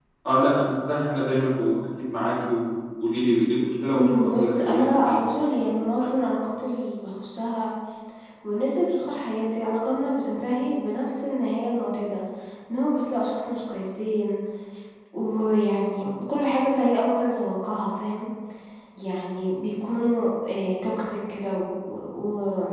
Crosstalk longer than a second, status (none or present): present